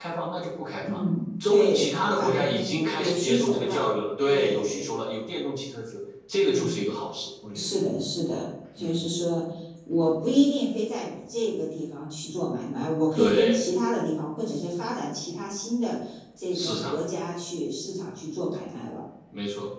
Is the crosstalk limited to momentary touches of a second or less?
No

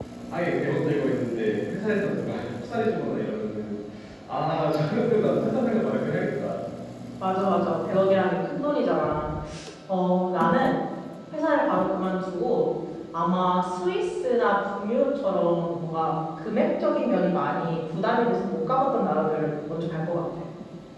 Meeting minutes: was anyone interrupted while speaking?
No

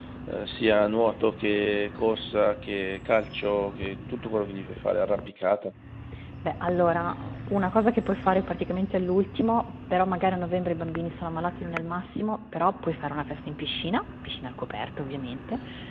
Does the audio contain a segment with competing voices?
No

